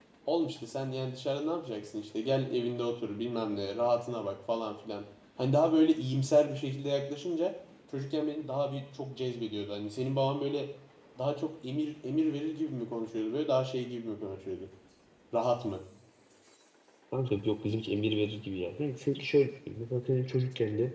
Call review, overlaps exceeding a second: none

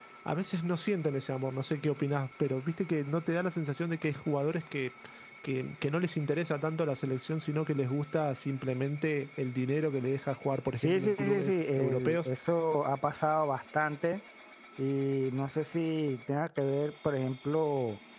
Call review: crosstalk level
present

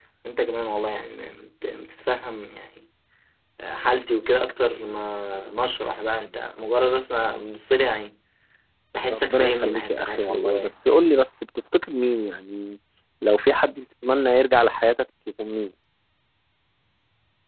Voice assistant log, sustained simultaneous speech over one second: present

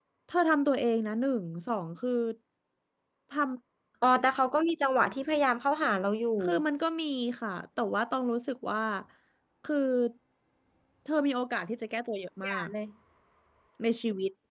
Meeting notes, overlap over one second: none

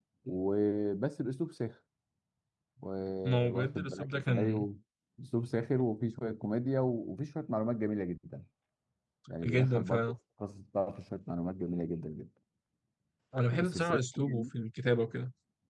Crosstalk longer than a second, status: present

